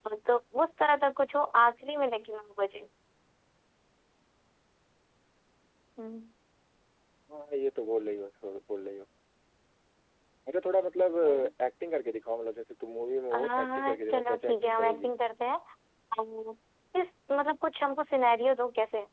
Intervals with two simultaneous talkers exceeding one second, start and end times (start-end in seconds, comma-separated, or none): 13.3-15.1